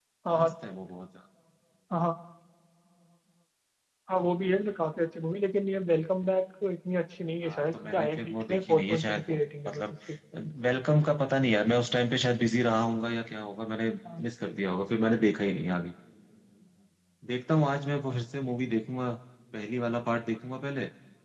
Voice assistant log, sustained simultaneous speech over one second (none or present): present